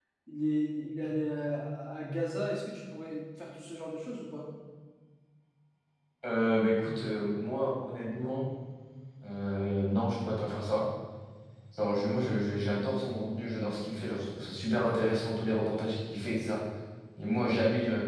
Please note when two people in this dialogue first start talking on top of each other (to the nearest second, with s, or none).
none